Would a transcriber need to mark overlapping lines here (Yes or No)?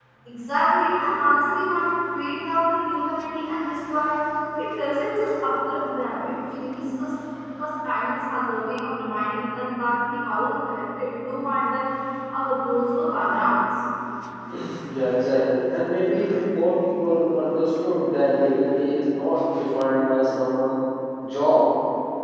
No